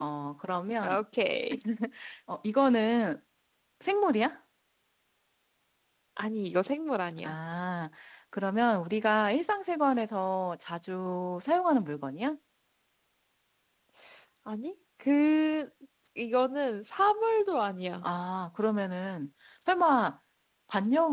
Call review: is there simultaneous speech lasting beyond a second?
No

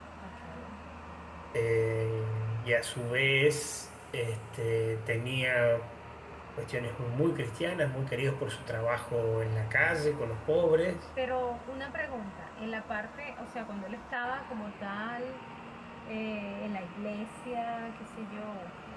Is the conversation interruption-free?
Yes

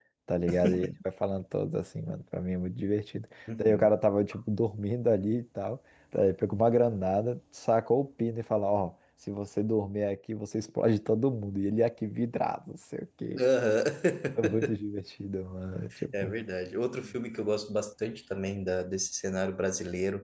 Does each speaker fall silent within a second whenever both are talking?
Yes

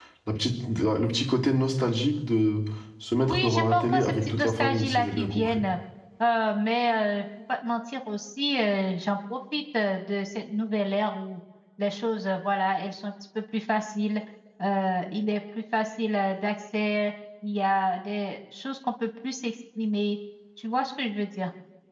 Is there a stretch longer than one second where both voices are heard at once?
Yes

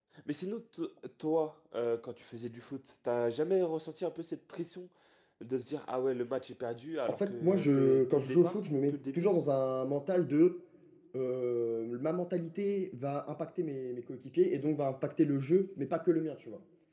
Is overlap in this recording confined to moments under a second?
No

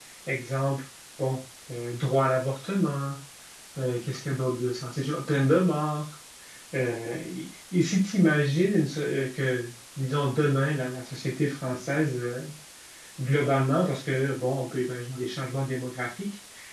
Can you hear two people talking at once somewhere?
No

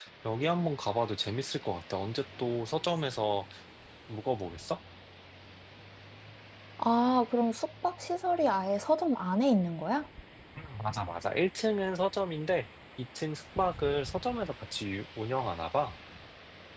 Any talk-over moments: No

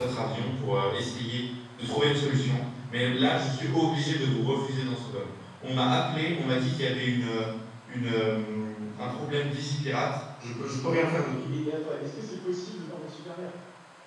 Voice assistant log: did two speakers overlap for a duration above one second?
No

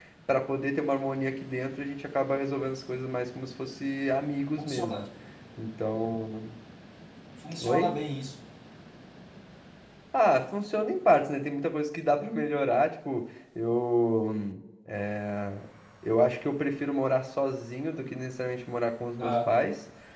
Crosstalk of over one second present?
No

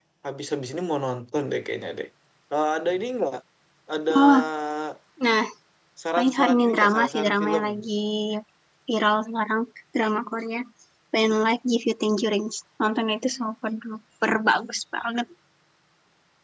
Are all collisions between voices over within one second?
No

